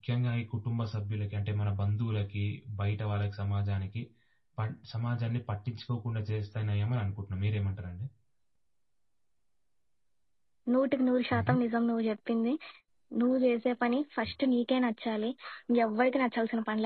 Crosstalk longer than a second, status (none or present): none